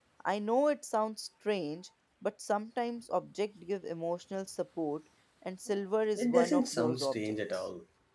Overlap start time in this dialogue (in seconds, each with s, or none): 6.2 s